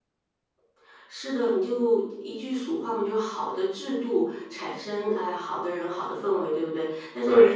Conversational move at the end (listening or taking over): listening